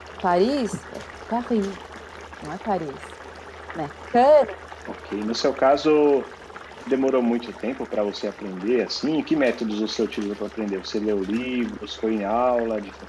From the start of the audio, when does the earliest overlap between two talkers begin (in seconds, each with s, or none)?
none